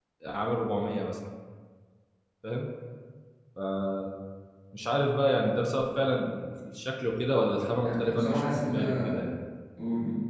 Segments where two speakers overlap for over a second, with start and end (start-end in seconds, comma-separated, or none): 7.8-9.1